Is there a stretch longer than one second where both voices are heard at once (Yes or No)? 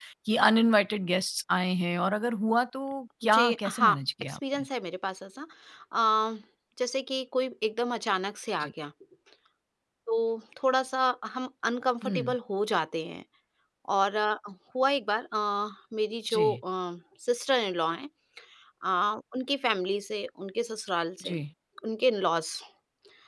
Yes